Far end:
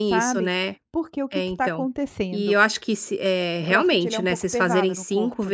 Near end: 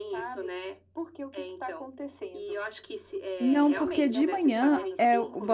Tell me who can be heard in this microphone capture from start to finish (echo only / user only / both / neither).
both